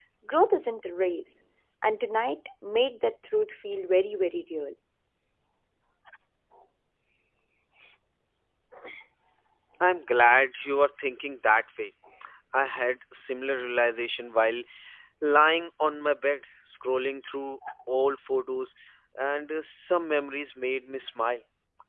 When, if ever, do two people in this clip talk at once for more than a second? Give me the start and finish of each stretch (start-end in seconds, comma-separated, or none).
none